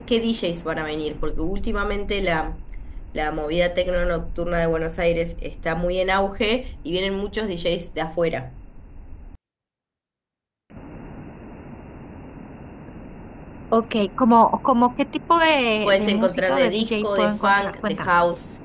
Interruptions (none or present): present